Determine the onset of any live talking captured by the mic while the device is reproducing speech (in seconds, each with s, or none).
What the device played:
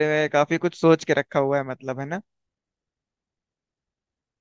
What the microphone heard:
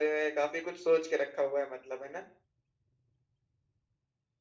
none